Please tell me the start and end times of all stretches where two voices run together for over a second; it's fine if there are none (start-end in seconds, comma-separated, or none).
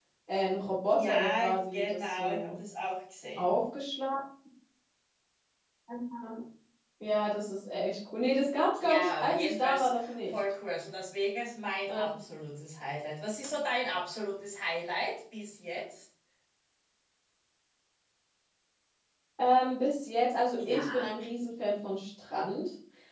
1.0-2.5, 8.8-10.3